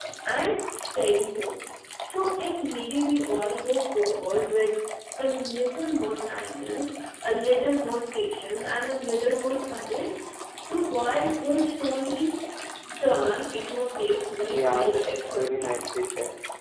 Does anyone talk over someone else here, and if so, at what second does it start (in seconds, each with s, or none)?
14.5 s